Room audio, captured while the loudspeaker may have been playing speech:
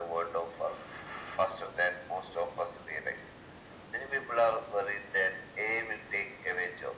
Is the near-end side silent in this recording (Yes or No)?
Yes